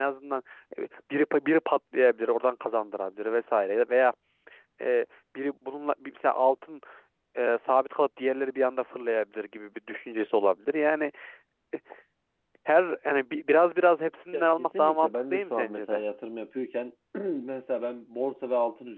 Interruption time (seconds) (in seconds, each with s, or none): 14.3 s